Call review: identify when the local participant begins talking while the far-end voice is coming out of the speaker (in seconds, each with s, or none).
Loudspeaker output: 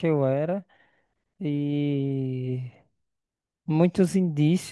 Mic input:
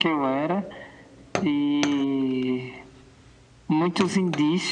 none